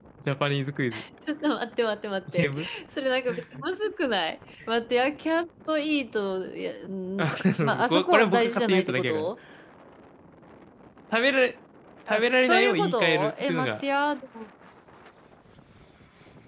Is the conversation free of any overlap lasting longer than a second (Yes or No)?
No